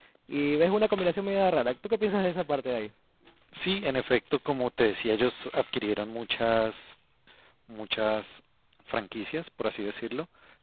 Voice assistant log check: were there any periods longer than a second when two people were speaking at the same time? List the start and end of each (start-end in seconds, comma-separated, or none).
none